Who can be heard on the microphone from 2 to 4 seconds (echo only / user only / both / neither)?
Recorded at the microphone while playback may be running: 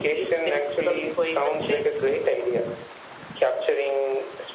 echo only